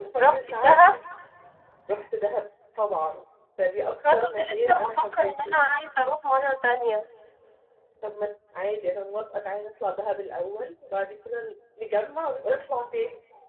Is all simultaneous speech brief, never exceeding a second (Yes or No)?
No